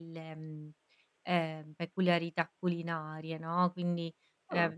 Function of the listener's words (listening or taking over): listening